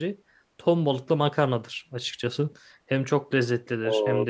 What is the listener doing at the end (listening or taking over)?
taking over